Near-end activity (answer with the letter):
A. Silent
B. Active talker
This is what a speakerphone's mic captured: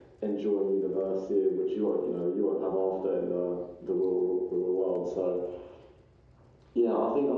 A